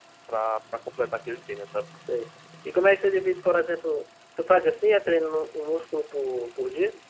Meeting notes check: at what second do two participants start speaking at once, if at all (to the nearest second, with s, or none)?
none